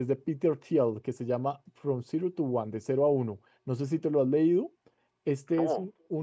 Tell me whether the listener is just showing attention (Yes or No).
Yes